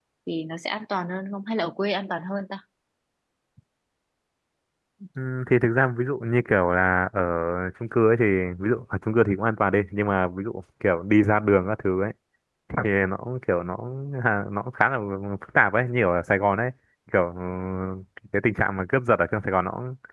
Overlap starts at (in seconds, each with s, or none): none